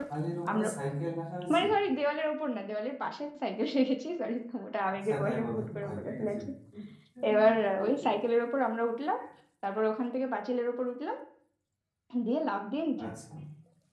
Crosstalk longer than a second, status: present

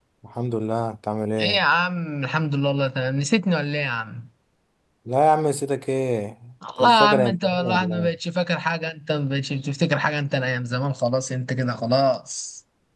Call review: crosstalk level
present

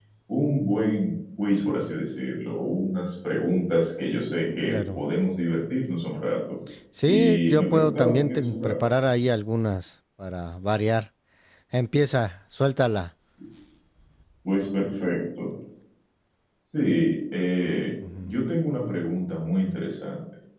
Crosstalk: present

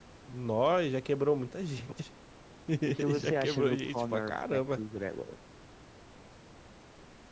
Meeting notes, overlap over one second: present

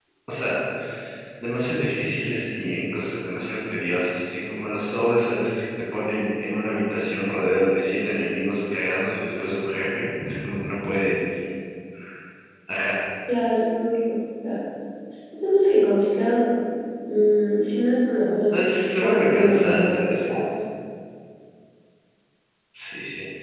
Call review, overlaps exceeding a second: present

